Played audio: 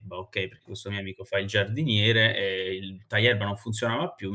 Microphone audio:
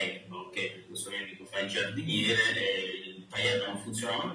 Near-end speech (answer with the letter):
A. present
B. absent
B